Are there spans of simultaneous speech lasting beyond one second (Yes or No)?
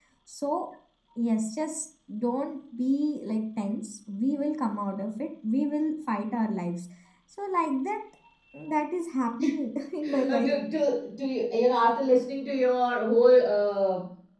No